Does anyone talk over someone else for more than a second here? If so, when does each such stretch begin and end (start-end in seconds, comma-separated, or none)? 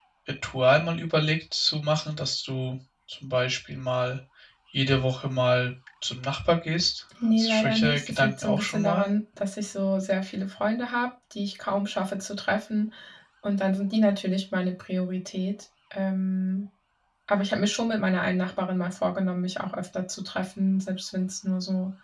7.3-9.1